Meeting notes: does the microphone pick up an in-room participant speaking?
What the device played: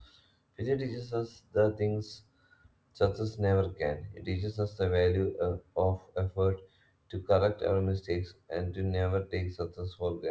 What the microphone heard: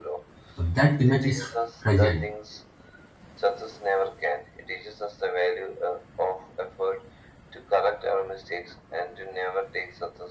Yes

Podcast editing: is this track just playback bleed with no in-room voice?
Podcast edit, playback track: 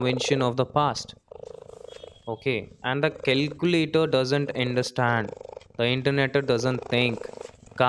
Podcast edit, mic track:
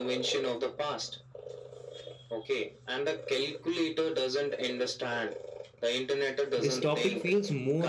No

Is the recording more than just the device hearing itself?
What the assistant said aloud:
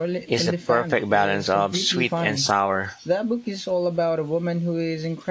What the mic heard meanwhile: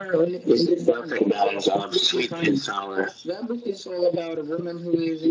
No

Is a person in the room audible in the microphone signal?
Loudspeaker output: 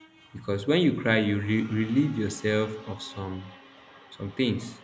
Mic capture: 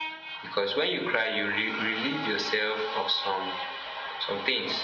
No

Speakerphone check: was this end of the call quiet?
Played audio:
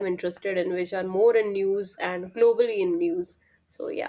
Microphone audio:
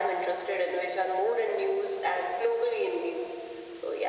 Yes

